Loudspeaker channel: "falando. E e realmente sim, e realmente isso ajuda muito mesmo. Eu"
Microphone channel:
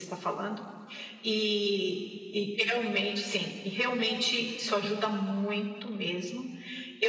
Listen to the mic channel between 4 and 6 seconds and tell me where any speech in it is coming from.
echo only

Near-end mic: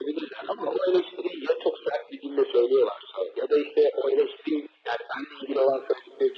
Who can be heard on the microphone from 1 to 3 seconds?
echo only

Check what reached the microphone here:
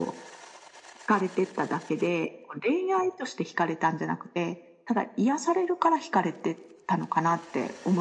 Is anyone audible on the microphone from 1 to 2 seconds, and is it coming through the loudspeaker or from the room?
echo only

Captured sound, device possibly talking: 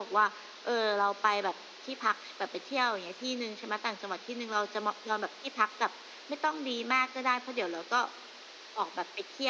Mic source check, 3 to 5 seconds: echo only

